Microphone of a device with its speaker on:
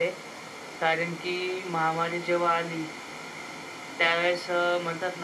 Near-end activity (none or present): none